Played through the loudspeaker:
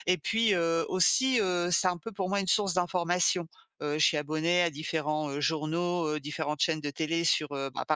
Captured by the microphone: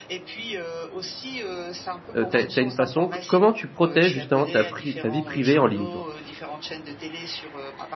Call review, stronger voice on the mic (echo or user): user